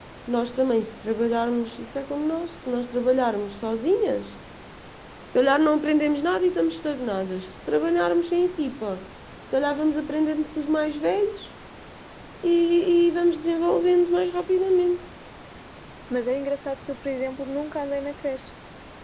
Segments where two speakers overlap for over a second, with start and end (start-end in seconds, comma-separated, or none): none